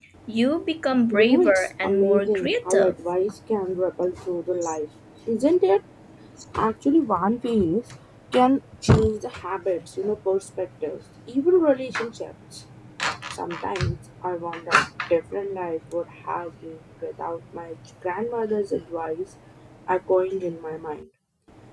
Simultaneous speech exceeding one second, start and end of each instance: 1.1-2.9

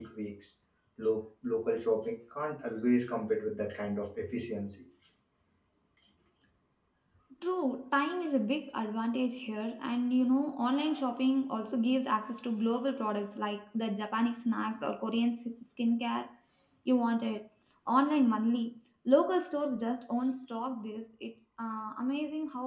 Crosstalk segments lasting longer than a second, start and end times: none

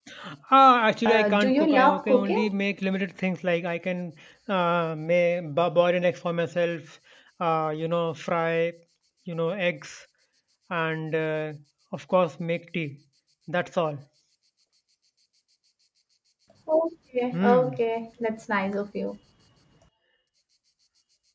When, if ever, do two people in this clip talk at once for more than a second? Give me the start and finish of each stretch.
1.0-2.5

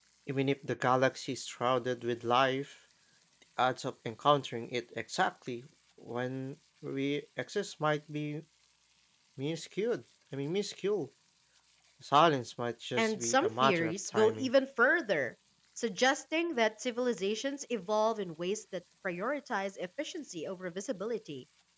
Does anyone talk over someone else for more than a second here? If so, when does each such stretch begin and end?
13.0-14.5

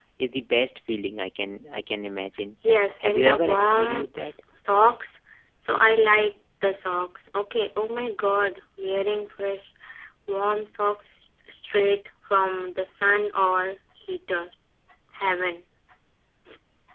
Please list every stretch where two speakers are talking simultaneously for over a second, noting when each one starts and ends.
3.0-4.3

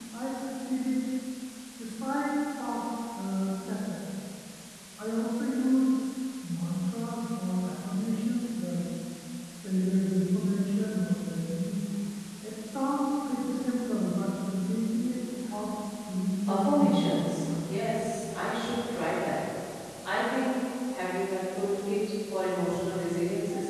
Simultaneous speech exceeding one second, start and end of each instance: 16.5-17.7

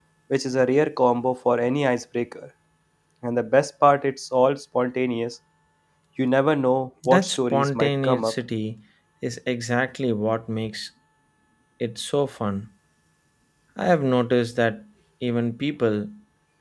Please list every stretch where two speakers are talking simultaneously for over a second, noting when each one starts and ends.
7.0-8.3

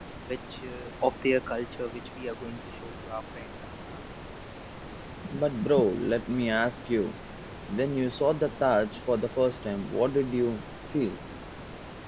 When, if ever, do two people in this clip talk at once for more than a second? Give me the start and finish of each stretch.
none

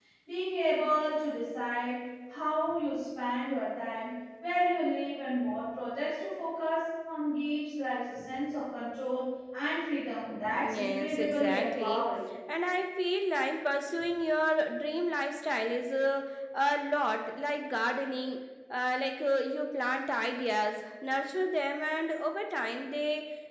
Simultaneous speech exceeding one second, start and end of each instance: 10.6-12.1

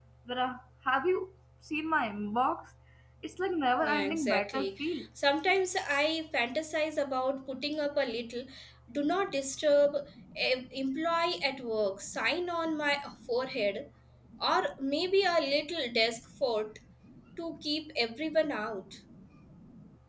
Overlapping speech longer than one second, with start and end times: 3.8-5.0

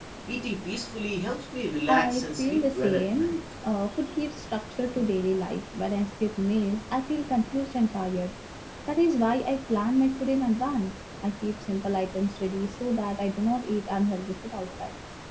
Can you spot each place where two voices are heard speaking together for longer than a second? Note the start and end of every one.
1.9-3.4

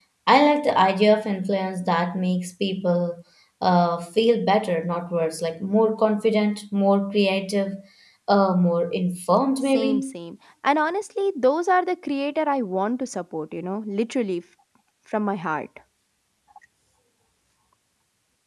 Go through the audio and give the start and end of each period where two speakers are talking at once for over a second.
none

